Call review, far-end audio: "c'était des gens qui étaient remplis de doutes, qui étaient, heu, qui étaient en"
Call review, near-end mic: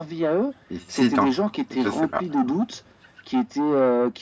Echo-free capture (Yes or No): No